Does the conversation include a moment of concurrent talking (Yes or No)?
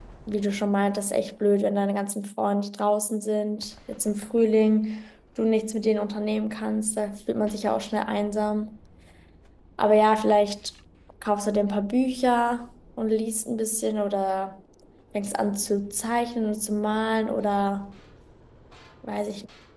No